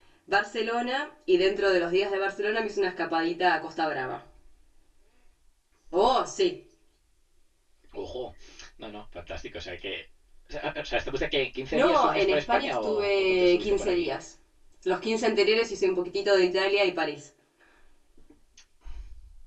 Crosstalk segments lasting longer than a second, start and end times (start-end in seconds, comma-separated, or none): 11.7-14.1